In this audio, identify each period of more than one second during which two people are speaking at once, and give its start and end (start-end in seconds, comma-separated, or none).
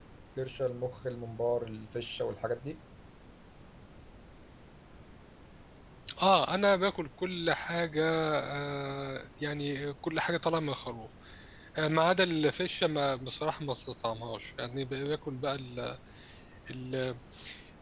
none